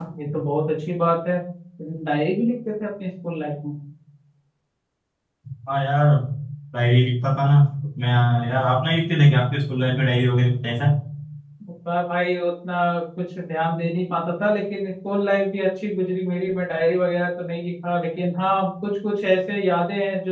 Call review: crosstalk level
none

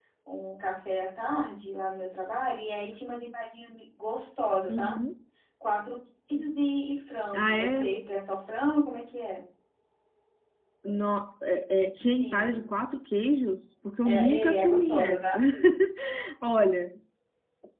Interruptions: present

